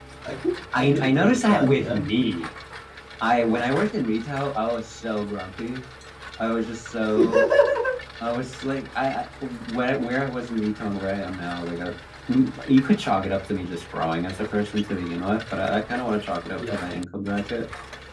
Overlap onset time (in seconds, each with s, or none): 0.7 s